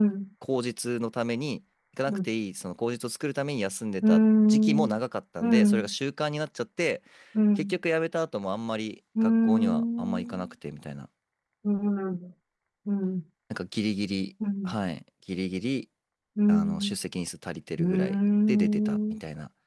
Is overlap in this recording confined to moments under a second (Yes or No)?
No